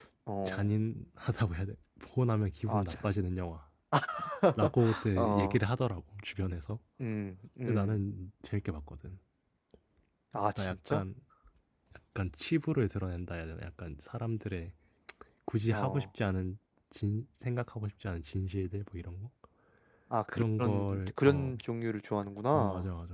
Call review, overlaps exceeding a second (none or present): present